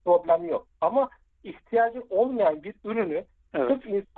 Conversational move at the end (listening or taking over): listening